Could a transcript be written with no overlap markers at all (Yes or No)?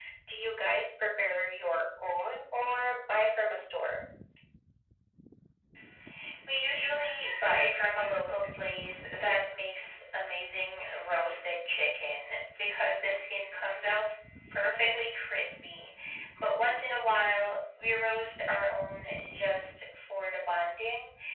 Yes